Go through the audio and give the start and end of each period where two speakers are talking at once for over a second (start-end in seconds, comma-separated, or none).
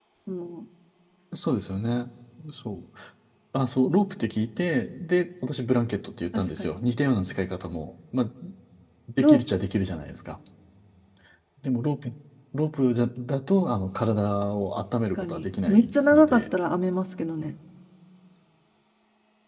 15.2-16.4